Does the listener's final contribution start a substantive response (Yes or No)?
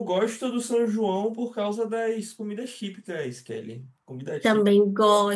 Yes